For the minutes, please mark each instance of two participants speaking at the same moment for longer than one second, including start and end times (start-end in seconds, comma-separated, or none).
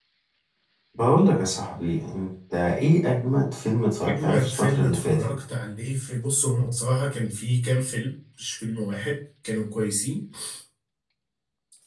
4.0-5.3